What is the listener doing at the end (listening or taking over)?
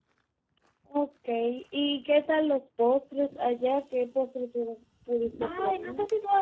taking over